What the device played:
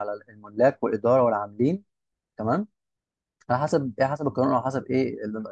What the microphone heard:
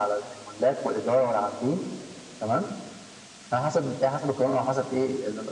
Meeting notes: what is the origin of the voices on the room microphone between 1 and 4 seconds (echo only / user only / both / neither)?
echo only